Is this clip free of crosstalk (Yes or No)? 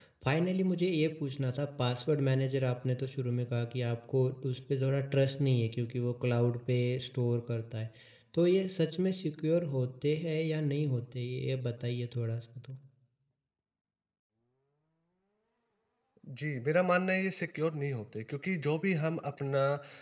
Yes